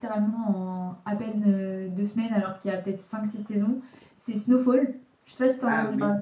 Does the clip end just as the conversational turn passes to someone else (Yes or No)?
Yes